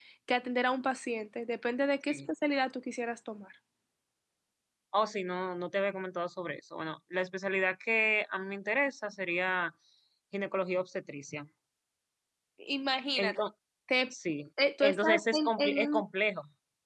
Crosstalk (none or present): present